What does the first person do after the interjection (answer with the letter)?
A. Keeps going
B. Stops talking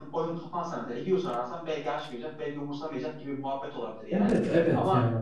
B